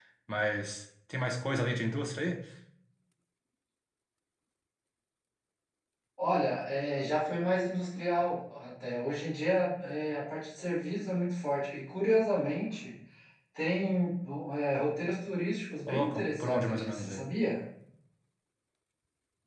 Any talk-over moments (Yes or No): Yes